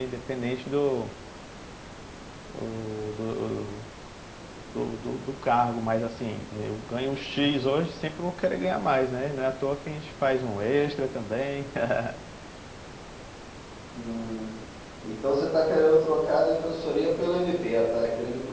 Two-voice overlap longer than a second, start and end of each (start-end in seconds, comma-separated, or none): none